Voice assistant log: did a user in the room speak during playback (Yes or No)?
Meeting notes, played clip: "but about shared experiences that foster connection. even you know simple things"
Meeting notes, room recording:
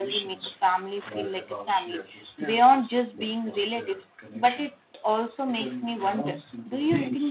Yes